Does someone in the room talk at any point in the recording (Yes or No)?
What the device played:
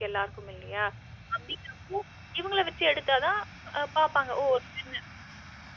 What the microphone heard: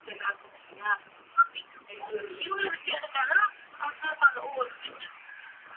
Yes